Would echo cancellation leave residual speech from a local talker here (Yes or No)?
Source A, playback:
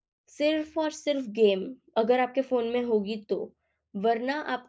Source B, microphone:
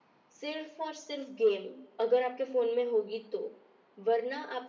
No